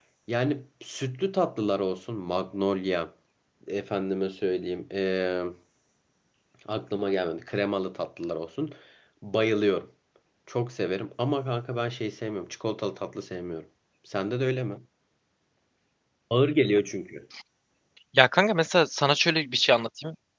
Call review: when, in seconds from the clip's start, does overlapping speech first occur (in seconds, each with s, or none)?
none